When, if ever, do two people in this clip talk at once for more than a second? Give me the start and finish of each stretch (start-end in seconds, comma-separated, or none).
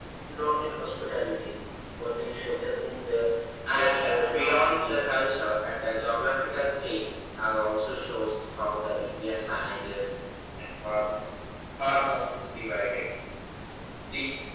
3.8-5.0